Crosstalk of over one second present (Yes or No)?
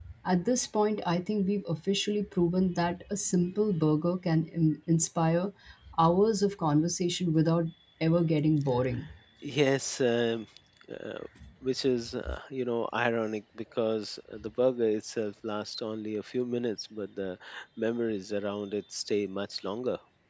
No